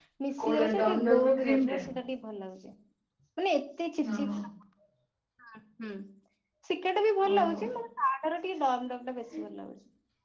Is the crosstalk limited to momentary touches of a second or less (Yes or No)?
No